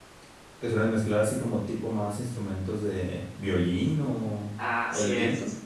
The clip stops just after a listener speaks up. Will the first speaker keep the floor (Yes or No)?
No